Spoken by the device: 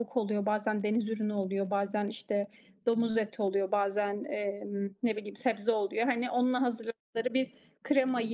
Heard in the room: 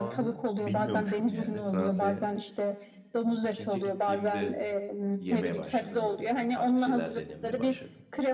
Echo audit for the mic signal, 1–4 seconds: both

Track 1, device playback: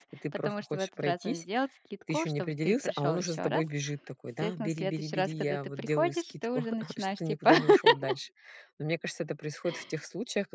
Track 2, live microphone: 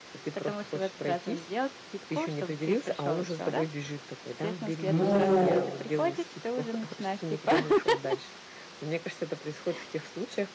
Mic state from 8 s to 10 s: echo only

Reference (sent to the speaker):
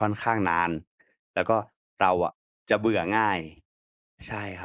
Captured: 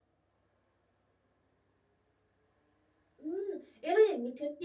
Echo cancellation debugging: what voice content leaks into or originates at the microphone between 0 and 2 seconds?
neither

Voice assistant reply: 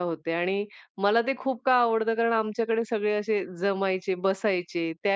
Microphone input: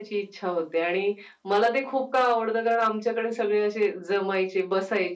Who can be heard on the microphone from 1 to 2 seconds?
echo only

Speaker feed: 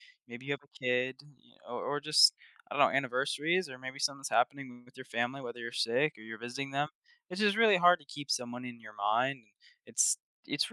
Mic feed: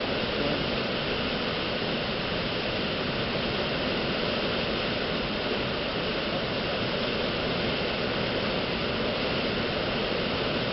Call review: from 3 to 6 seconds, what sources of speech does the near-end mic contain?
neither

